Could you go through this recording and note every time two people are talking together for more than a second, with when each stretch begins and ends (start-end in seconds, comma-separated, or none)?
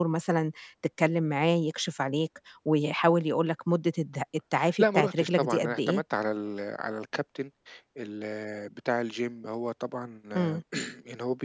4.8-6.0